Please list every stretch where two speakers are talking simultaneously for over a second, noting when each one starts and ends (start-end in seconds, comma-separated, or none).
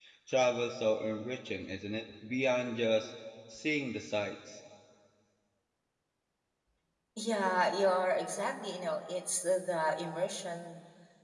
none